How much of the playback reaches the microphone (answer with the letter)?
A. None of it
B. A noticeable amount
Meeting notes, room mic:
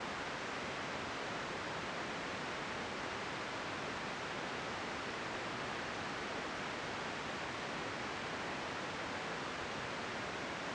A